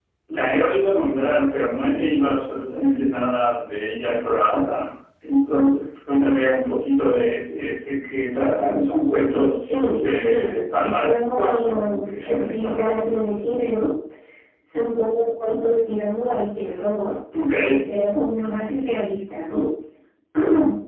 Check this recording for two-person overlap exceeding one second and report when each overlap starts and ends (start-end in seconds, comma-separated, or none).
10.3-12.8